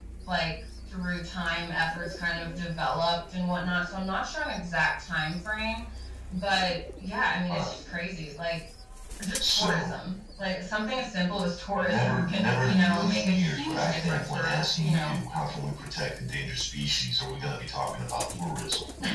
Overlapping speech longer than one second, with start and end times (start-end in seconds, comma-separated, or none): 11.8-15.2